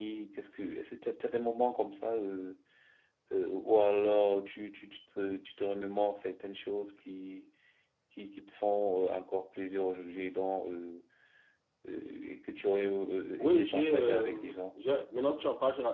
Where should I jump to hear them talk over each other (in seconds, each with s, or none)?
13.4 s